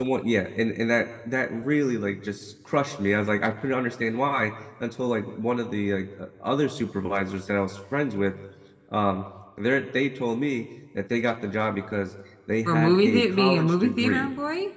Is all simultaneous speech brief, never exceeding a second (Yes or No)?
No